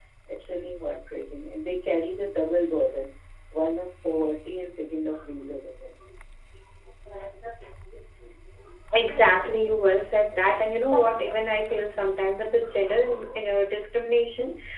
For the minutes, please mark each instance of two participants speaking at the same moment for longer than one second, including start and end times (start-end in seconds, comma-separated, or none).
none